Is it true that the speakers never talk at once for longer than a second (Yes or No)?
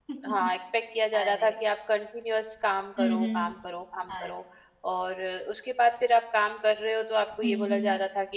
Yes